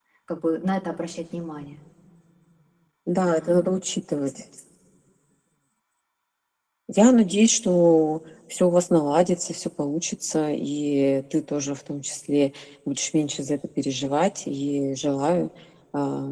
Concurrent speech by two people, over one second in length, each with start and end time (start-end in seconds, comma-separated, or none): none